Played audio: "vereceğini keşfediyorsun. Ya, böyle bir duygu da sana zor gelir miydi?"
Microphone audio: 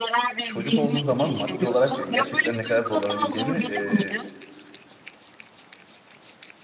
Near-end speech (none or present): present